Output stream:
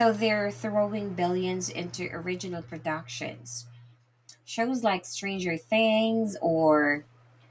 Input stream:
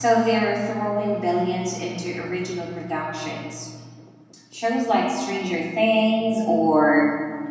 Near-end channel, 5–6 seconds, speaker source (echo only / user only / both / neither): echo only